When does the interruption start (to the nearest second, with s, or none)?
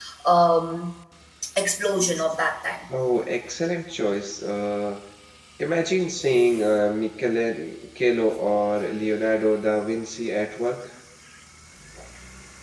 none